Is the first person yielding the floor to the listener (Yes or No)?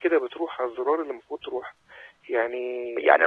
Yes